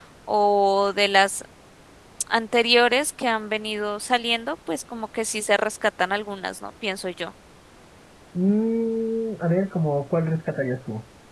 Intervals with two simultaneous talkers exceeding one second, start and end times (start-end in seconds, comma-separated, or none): none